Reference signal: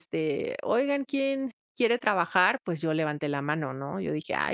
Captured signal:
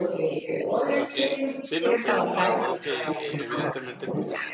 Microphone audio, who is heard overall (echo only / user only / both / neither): both